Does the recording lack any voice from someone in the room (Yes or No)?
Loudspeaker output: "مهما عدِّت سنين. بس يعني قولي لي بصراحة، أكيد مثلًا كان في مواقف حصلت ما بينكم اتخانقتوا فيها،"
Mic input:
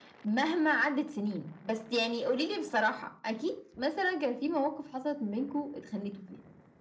Yes